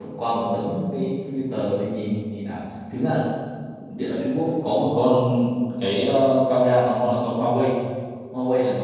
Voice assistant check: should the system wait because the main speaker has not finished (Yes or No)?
Yes